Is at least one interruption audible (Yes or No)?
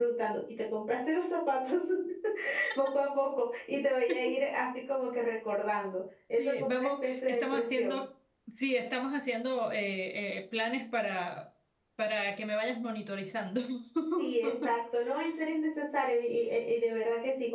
Yes